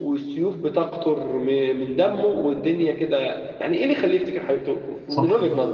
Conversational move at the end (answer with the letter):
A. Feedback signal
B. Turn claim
B